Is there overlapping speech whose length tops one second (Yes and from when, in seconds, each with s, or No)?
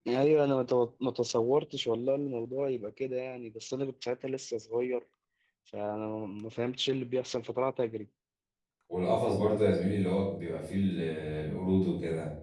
No